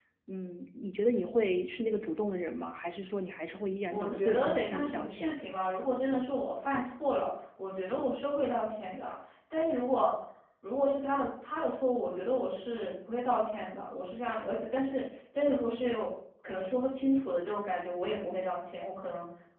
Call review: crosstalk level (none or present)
present